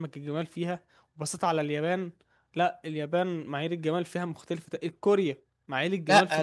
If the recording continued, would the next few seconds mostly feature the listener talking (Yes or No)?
Yes